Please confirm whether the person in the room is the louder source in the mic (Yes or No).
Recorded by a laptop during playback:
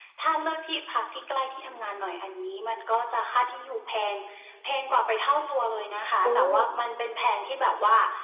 Yes